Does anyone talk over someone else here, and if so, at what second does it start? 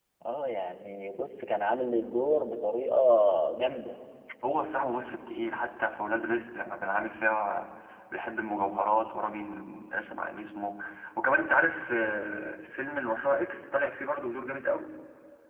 none

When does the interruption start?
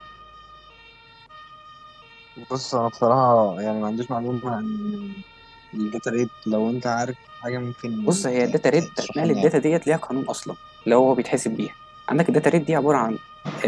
8.1 s

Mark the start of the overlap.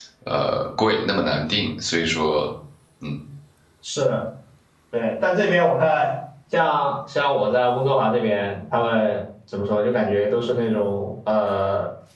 none

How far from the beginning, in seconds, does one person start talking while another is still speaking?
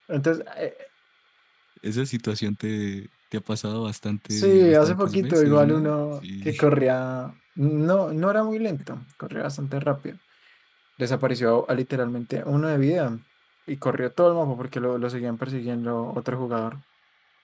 4.3 s

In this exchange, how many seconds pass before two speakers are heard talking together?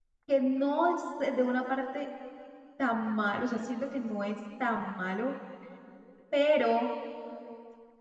none

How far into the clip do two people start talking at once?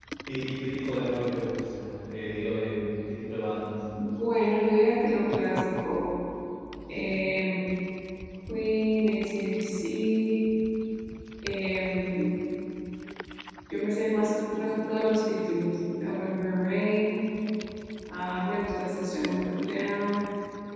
none

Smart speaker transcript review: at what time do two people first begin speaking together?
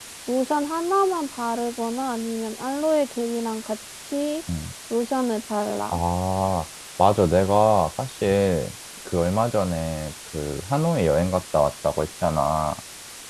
none

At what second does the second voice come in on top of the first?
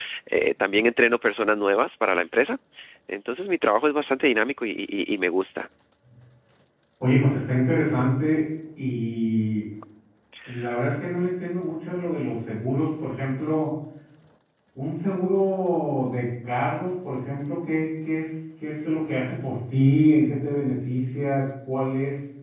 none

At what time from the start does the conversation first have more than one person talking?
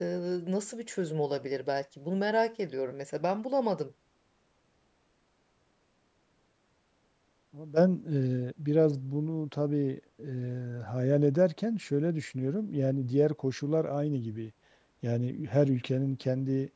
none

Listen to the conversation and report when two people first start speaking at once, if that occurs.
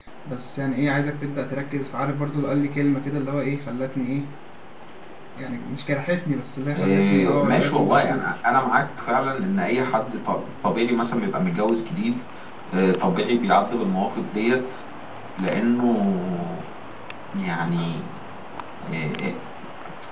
6.7 s

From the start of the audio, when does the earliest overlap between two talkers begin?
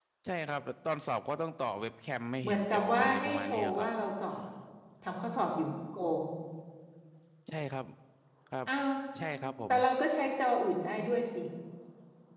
2.4 s

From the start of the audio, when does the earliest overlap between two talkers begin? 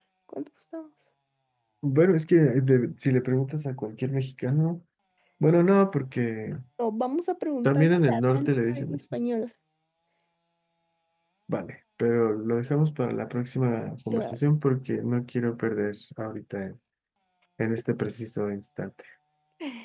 7.6 s

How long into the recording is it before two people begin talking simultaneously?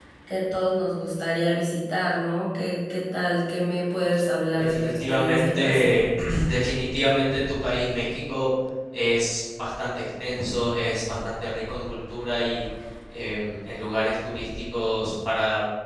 4.5 s

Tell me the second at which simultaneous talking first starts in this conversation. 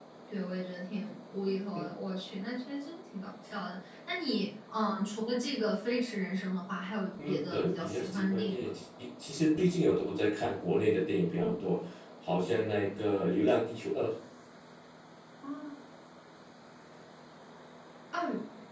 7.2 s

